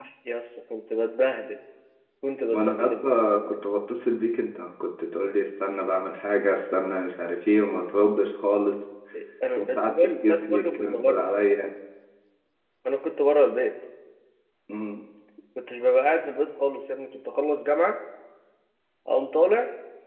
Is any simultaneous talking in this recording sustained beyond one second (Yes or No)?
Yes